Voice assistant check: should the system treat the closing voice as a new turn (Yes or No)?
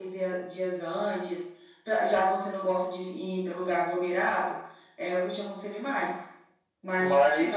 No